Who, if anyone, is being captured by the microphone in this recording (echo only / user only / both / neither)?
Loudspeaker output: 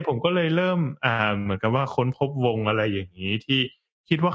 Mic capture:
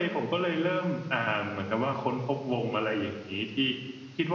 echo only